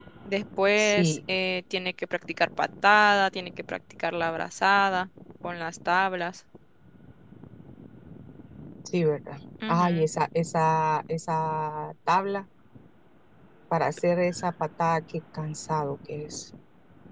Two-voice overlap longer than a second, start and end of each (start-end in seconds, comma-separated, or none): none